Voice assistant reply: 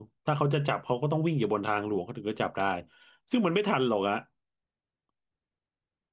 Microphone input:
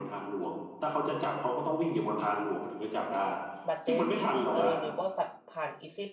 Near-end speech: present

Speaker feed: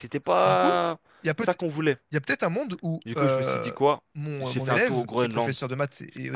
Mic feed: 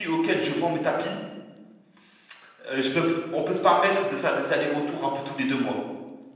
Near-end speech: present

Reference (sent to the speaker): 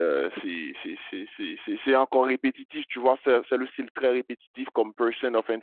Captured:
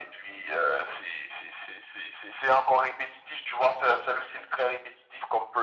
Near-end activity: none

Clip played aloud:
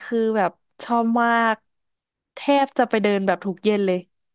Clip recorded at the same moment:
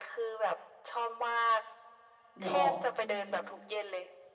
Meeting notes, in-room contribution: present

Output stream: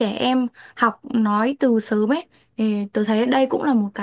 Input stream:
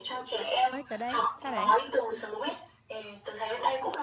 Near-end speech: present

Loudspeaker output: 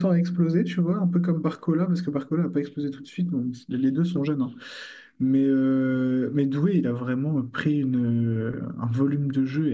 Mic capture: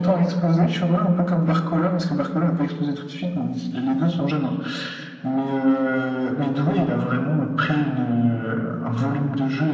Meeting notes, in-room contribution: none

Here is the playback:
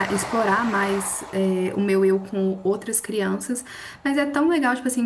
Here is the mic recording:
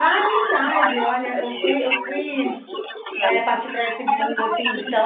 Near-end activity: present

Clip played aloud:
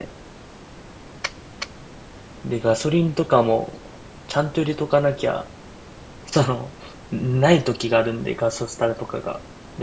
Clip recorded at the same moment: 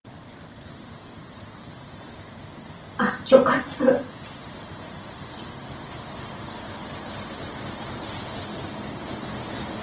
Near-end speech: present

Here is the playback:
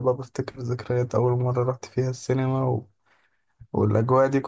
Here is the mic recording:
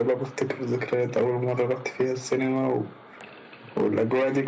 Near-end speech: none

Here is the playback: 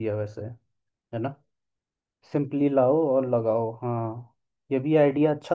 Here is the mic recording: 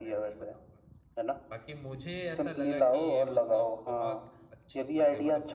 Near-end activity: present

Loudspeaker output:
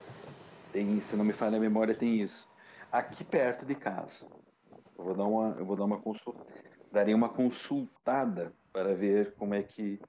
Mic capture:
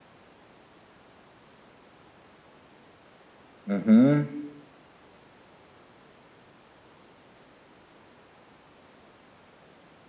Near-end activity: present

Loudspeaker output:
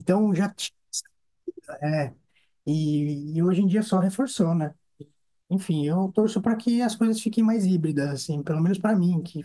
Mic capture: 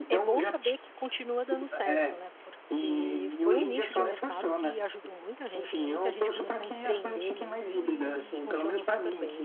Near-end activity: present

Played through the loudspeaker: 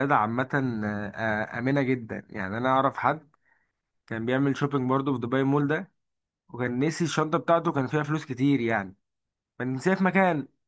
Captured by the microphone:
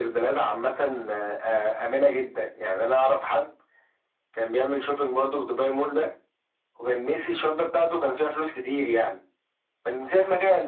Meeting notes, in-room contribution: none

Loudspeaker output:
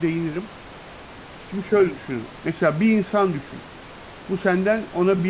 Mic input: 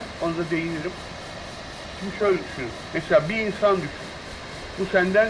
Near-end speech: none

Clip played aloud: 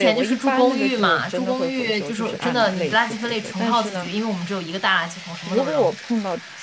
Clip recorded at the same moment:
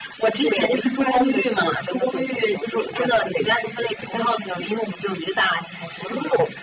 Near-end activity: none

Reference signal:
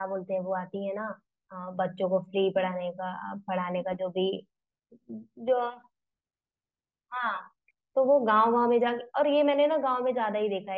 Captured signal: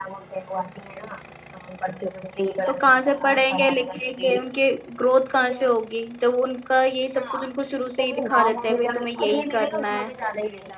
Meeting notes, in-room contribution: present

